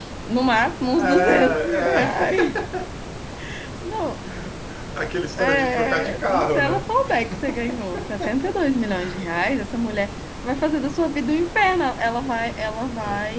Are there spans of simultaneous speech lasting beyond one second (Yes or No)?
Yes